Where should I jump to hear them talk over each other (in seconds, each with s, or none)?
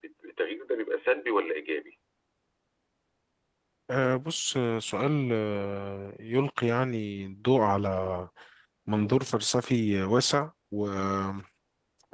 none